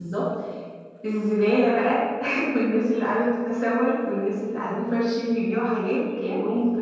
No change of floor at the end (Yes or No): Yes